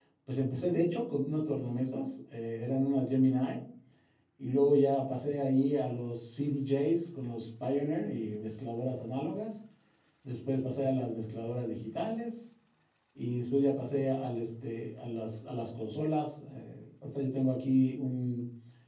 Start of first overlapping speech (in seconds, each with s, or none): none